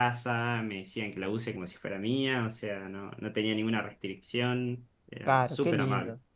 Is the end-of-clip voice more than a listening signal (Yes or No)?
Yes